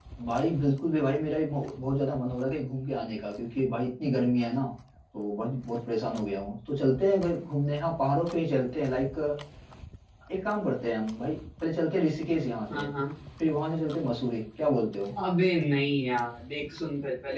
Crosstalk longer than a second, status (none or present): none